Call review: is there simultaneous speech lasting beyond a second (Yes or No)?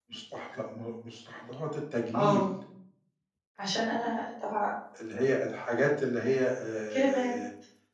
No